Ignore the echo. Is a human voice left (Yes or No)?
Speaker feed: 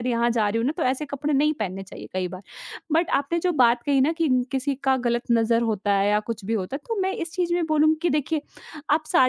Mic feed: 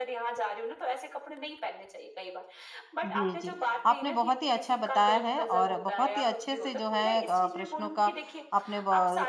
Yes